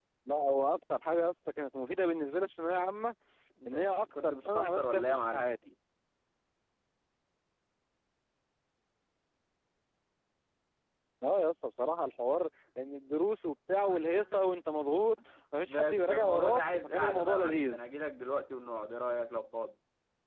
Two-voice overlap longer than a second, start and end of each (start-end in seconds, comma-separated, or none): 3.7-5.5, 15.6-17.9